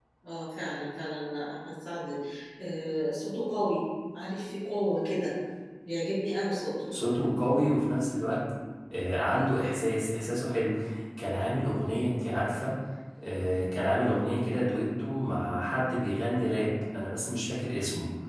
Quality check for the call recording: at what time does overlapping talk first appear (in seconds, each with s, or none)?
none